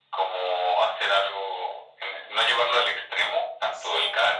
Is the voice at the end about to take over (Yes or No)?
No